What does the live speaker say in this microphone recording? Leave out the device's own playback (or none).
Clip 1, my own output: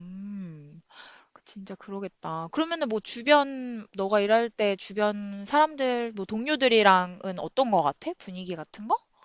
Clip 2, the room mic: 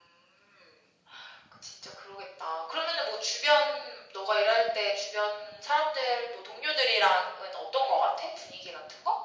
none